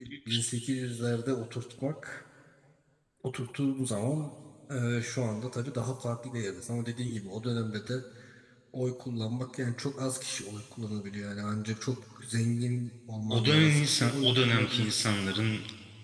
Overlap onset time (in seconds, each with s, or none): 13.3 s